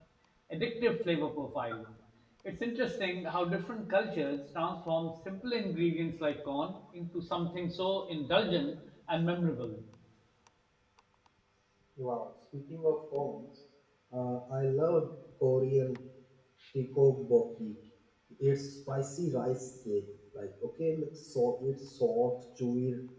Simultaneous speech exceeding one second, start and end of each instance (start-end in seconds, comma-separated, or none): none